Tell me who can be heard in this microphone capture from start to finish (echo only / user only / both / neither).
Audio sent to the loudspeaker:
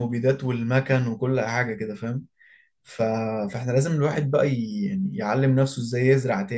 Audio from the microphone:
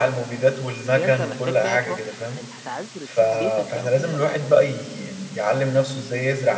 both